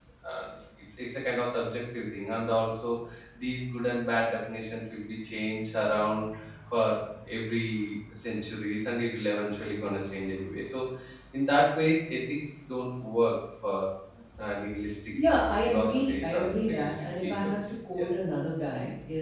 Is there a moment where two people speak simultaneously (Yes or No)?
Yes